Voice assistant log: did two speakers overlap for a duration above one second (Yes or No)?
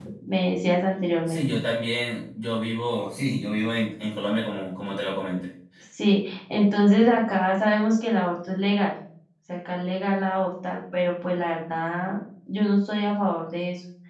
No